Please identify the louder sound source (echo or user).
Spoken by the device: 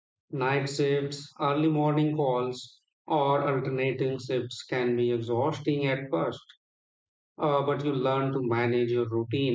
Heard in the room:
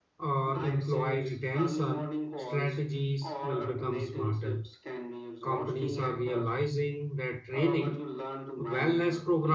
user